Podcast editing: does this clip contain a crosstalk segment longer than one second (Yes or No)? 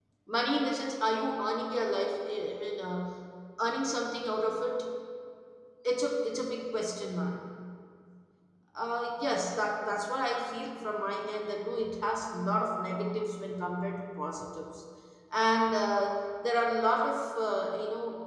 No